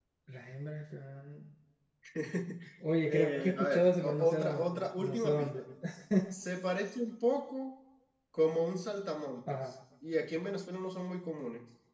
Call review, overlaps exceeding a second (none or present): present